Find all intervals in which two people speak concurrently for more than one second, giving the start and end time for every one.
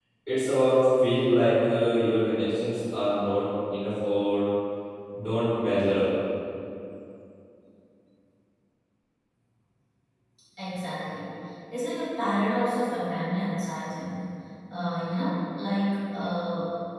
none

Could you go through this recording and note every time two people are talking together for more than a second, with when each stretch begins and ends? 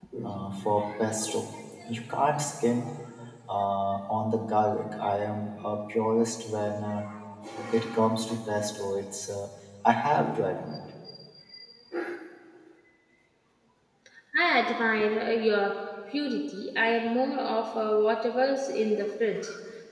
none

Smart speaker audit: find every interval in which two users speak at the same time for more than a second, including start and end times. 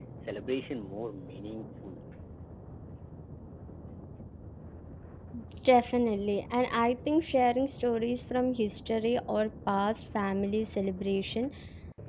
none

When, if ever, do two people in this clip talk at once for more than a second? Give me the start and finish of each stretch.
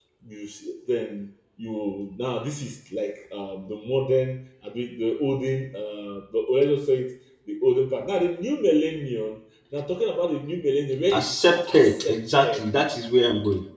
11.1-12.7

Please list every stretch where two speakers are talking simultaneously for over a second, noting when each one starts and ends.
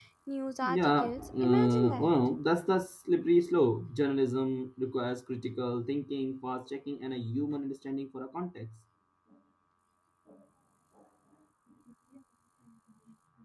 0.7-2.1

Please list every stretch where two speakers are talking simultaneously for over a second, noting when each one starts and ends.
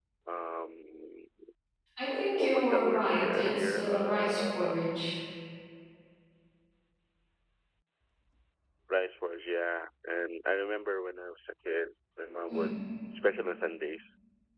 2.1-4.7

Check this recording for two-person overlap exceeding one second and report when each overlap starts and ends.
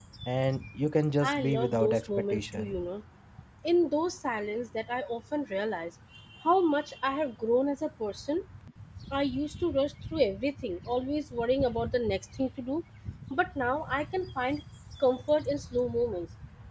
1.2-2.9

